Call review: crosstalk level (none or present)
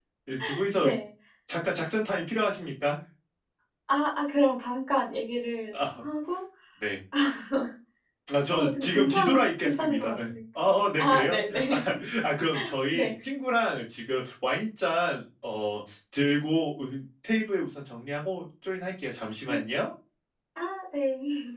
present